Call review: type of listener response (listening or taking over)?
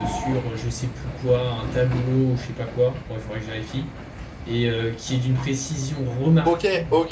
taking over